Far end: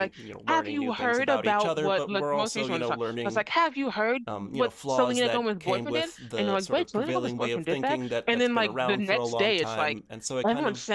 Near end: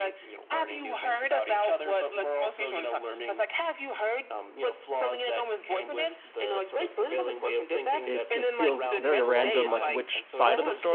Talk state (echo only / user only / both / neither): both